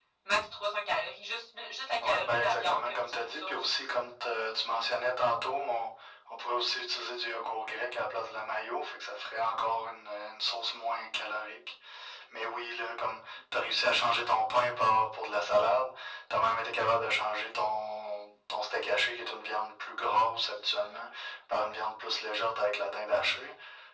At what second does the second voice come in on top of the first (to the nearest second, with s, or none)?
2 s